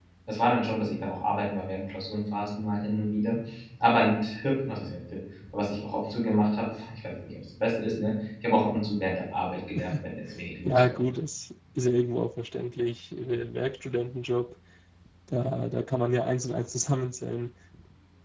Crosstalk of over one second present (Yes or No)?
No